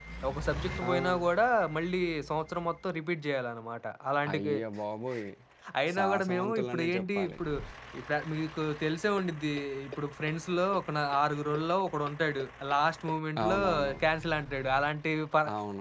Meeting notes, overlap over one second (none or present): present